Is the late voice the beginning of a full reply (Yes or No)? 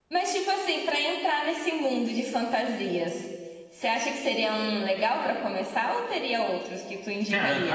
Yes